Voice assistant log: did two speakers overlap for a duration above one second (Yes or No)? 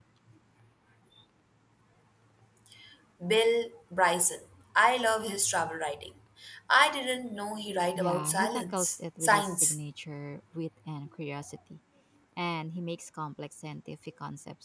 Yes